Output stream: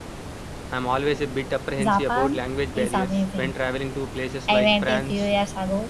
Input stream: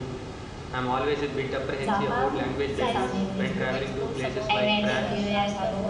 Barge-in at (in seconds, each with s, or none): 2.6 s